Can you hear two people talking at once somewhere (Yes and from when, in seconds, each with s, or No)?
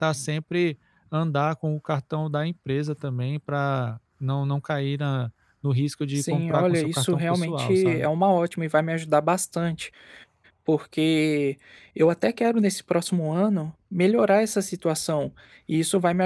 Yes, from 6.2 s